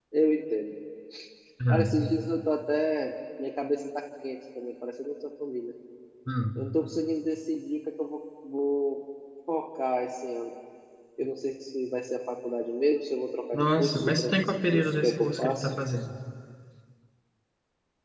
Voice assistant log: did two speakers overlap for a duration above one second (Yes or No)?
Yes